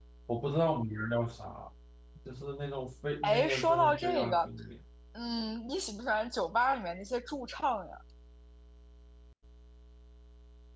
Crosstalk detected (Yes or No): Yes